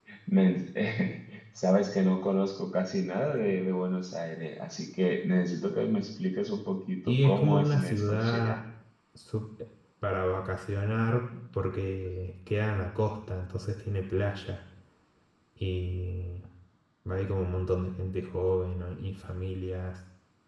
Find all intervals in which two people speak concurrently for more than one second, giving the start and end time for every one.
7.1-8.6

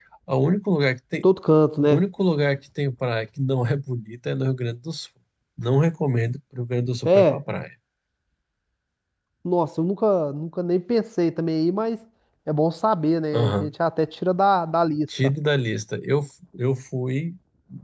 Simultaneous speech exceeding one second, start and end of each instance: none

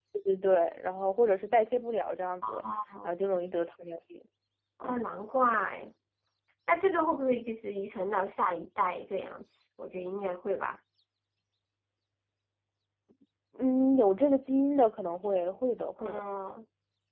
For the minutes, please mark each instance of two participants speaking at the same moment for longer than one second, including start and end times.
none

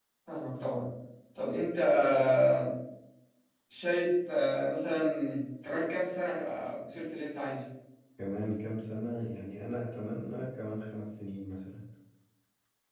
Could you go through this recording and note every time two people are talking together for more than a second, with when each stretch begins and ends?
none

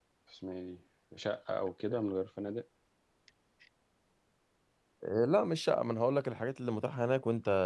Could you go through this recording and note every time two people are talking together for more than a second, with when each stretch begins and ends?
none

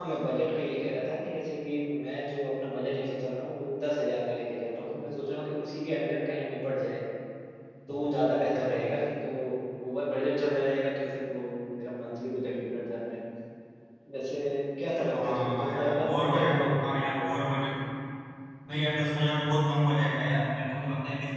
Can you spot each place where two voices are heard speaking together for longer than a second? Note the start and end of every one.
15.1-16.9

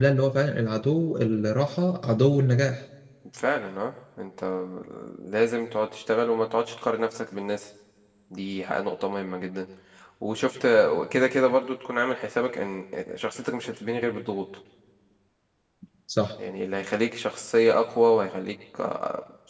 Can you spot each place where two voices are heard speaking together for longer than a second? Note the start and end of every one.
none

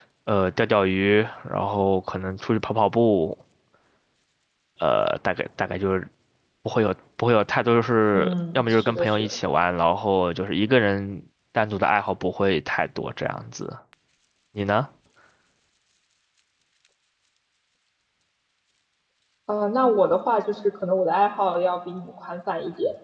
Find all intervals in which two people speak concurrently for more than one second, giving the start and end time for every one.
8.1-9.4

